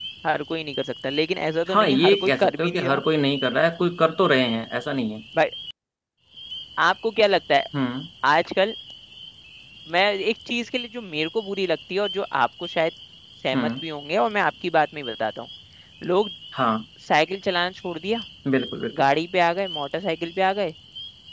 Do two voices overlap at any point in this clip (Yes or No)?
Yes